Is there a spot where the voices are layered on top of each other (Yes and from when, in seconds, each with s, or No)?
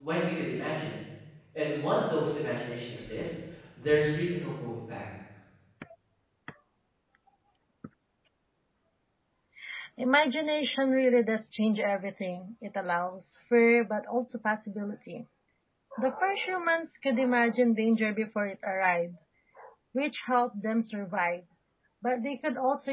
No